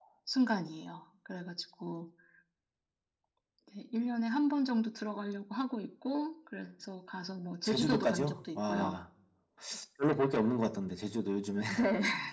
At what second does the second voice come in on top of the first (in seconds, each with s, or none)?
7.6 s